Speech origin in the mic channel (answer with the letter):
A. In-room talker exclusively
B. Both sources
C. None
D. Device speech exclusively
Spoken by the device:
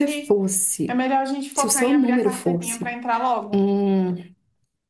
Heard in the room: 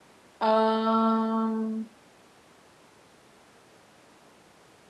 A